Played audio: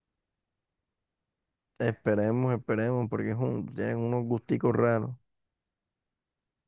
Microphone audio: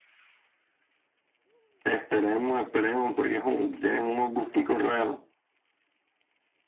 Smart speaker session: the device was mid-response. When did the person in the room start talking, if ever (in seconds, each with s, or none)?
none